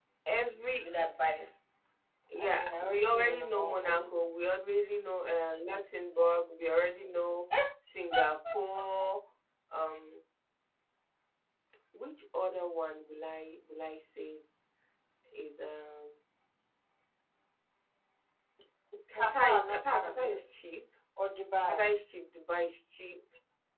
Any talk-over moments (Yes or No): Yes